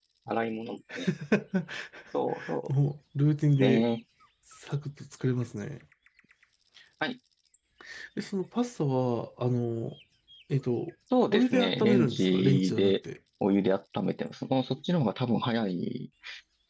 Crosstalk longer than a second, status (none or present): present